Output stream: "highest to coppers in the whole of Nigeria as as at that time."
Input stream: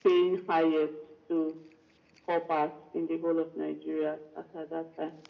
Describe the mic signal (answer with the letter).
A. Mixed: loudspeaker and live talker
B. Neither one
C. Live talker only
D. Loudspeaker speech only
D